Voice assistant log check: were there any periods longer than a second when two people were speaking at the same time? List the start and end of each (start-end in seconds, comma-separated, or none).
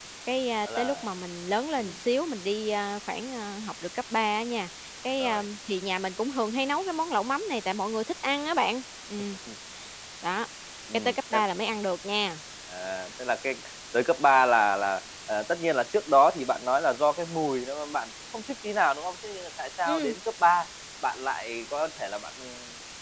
none